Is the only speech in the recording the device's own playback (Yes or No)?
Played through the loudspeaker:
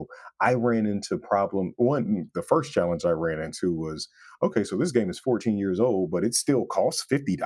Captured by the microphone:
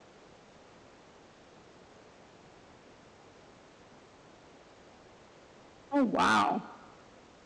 No